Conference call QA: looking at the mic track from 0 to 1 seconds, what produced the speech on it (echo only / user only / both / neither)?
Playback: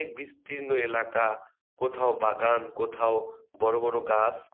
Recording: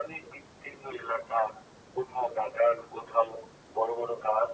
echo only